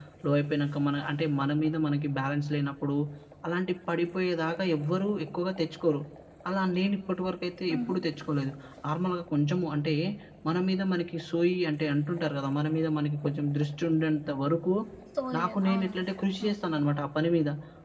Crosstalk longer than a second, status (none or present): present